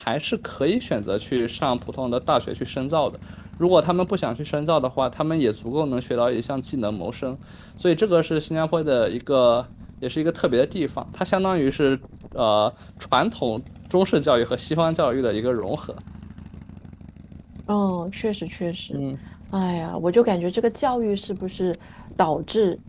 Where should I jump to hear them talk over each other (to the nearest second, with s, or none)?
none